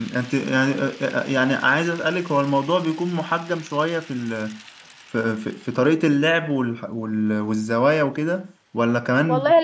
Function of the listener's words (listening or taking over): taking over